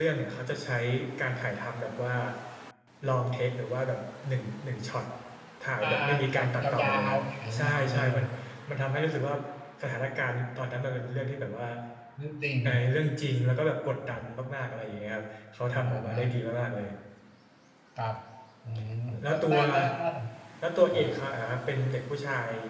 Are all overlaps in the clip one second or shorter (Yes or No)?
No